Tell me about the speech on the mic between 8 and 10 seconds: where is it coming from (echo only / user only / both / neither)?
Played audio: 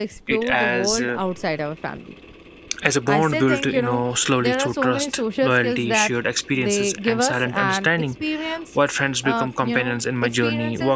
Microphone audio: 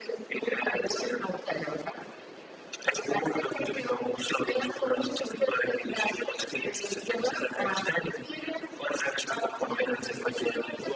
echo only